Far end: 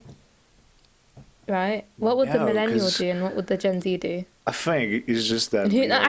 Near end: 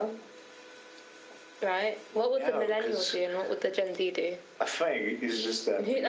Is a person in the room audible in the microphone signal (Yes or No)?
No